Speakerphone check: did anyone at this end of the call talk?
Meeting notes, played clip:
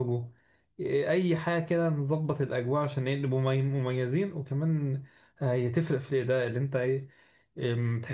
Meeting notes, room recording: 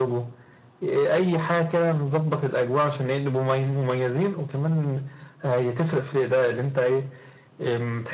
No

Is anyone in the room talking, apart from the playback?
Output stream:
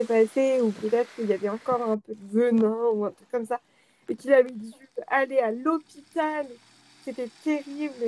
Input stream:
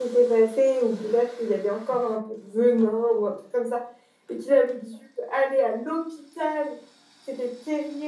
No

